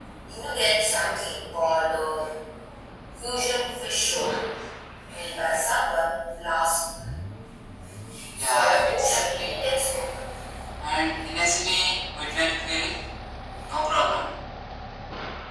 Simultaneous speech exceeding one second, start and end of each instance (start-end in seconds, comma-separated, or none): 8.4-9.7